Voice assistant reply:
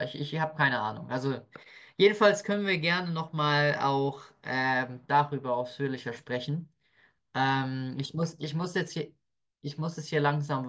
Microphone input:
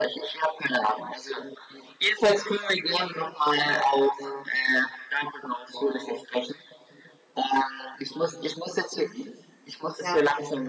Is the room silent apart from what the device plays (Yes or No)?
No